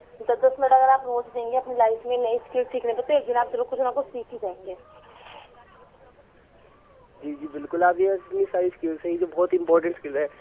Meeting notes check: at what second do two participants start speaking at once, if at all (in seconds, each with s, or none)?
none